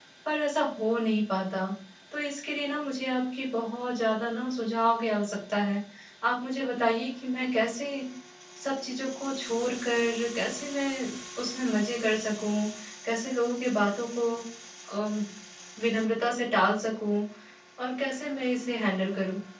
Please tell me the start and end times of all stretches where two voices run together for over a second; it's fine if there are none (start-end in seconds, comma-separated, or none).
none